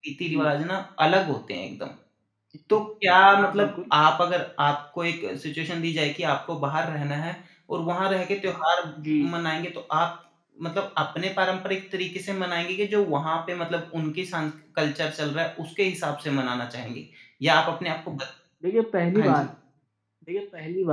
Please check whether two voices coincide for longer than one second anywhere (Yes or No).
No